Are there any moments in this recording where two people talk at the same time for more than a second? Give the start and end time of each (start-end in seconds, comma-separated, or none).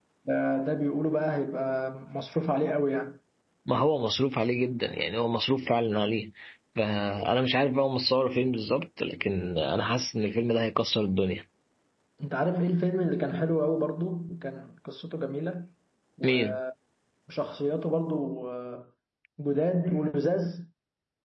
none